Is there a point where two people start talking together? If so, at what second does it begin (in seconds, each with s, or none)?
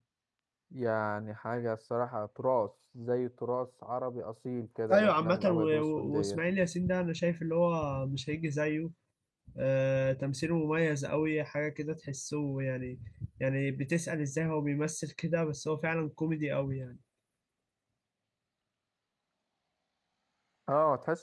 4.9 s